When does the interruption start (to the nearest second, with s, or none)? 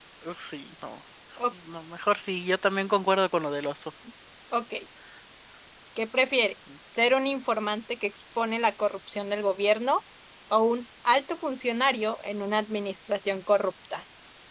none